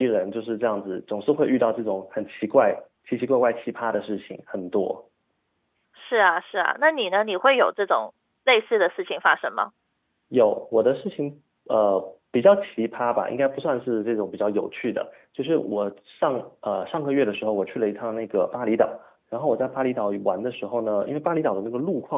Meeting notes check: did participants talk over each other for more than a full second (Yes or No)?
No